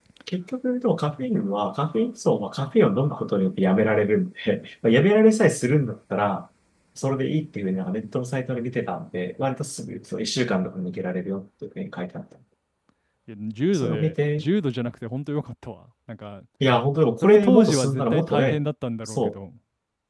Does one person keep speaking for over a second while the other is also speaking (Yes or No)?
Yes